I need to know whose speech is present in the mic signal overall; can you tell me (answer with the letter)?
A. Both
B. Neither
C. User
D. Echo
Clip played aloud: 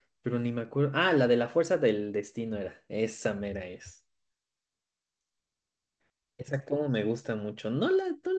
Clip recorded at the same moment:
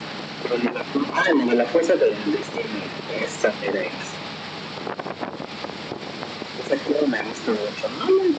D